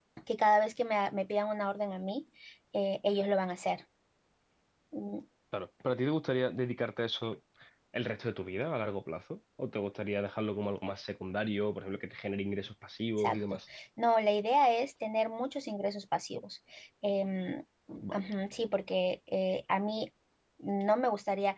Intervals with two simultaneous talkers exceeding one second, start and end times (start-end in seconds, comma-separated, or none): none